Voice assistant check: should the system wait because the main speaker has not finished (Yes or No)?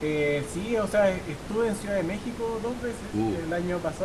Yes